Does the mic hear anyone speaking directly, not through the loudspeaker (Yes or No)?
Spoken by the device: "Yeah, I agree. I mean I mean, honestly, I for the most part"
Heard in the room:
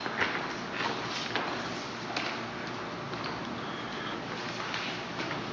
No